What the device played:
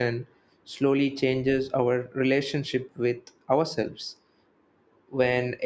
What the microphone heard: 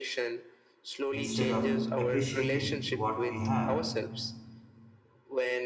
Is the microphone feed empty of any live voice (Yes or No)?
No